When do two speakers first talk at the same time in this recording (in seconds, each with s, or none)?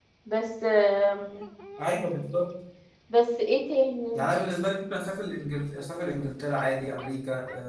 none